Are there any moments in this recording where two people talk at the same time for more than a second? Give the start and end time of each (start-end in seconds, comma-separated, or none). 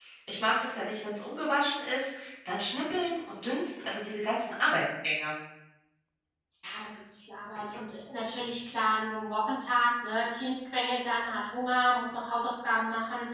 none